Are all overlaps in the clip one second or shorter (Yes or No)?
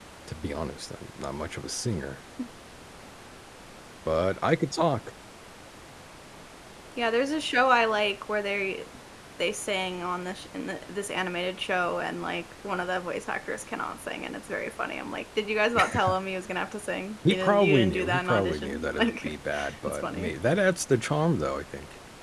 No